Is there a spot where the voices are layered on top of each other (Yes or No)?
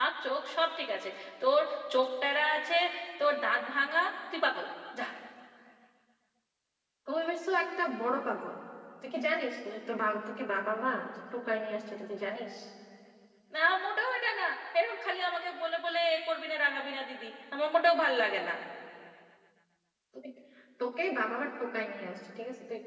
No